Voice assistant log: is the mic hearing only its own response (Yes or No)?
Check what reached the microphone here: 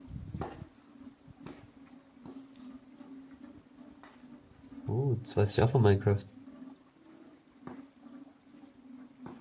No